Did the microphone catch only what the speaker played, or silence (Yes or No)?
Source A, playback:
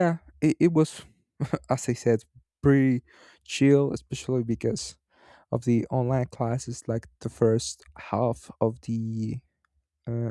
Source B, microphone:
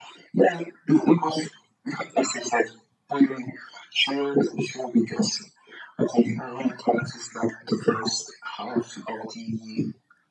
Yes